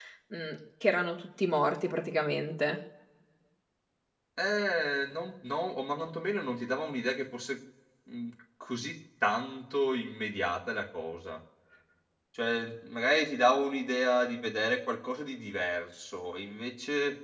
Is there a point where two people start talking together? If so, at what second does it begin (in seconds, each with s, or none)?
none